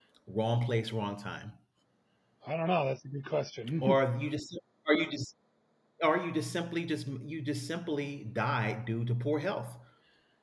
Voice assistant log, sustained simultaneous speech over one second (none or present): none